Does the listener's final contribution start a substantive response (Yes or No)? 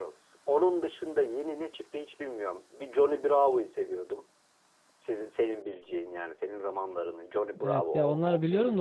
Yes